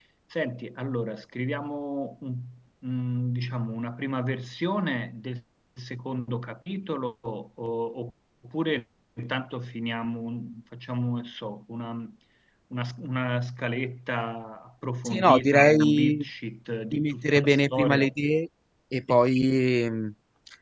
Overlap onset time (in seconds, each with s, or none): 15.1 s